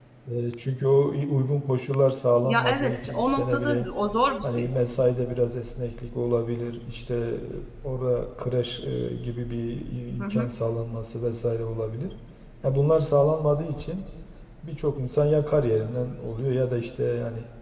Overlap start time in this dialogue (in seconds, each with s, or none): 2.4 s